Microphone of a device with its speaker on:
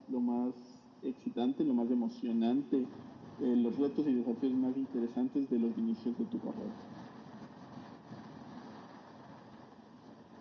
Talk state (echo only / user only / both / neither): echo only